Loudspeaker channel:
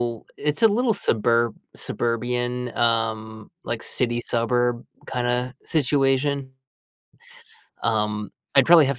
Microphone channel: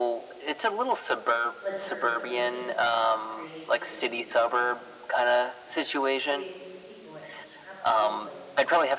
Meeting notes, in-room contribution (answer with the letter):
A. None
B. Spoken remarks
B